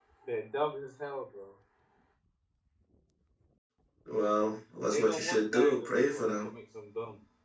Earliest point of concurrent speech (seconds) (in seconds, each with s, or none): 4.9 s